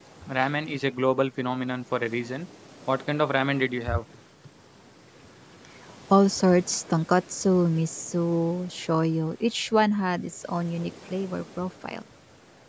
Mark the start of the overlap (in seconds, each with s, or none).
none